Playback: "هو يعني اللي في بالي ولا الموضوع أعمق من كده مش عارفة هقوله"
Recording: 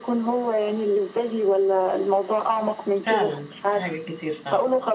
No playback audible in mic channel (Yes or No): No